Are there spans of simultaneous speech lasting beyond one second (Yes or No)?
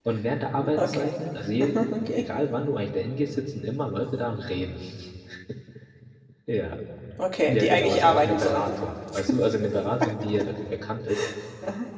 Yes